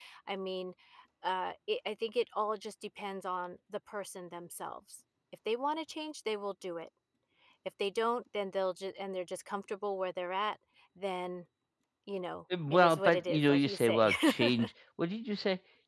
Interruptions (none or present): present